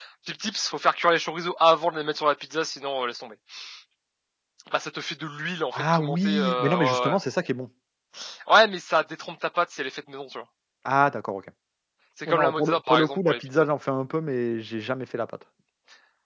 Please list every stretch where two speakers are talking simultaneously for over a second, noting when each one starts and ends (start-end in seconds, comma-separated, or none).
5.7-7.2, 12.3-13.7